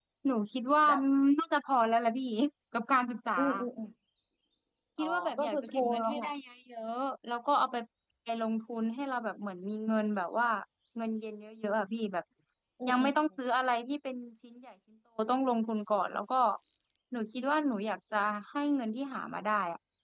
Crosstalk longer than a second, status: present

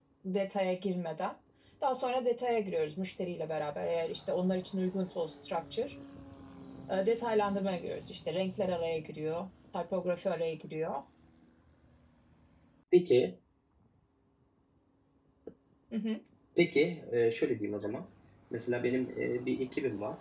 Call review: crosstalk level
none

